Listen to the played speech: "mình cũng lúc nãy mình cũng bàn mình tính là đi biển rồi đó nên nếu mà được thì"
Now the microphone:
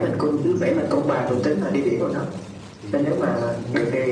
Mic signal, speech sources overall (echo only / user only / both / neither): both